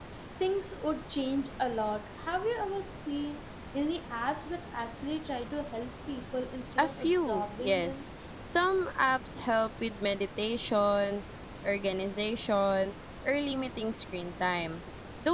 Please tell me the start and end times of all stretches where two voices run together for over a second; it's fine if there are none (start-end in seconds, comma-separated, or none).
6.8-8.1